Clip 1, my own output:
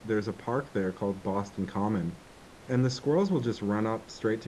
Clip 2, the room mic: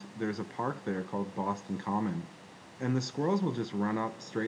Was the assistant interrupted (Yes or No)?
No